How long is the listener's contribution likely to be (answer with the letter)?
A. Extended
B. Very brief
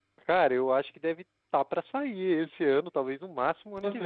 A